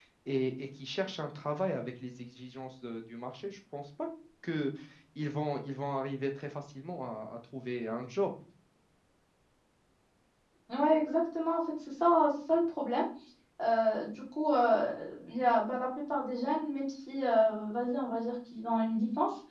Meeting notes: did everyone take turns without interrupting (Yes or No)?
Yes